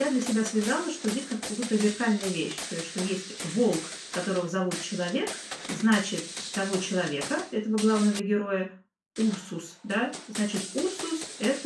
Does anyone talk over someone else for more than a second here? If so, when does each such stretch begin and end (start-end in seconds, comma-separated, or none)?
none